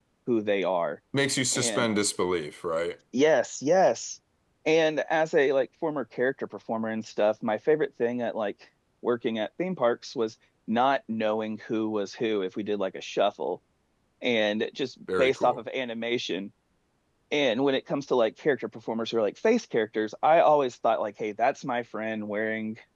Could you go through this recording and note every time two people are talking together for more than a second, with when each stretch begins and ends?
none

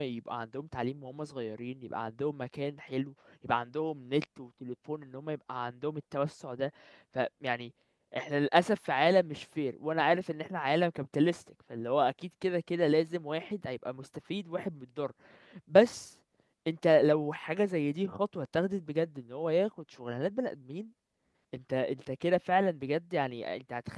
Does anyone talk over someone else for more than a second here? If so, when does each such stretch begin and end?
none

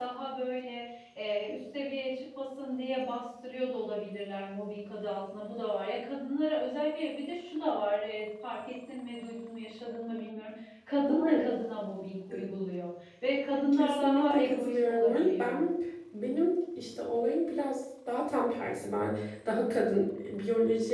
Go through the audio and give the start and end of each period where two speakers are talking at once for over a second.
13.7-15.6

